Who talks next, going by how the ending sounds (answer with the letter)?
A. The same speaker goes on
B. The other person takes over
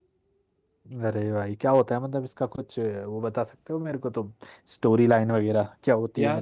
A